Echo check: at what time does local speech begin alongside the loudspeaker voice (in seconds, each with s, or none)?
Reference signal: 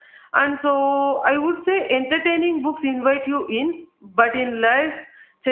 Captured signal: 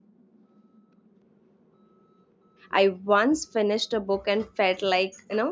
2.7 s